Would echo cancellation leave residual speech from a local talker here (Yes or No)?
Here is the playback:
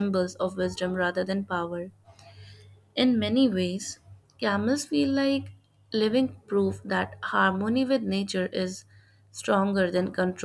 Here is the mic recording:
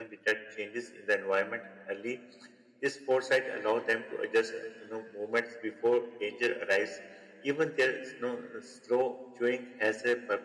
Yes